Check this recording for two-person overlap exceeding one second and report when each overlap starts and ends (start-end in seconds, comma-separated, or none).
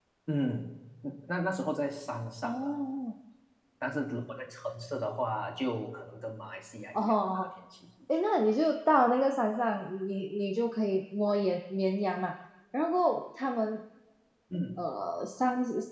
none